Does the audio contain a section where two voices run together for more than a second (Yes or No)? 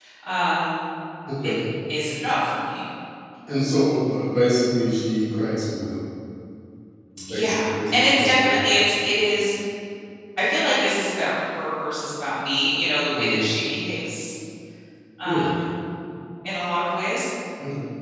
Yes